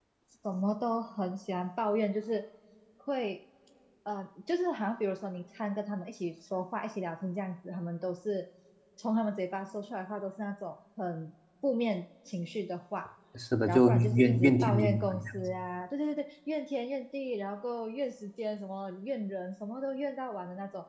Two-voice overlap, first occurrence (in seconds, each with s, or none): 13.7 s